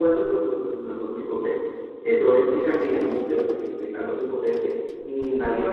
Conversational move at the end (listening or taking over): taking over